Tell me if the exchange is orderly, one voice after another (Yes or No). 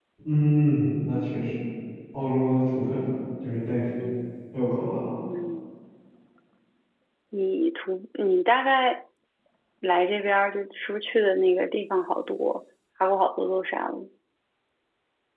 Yes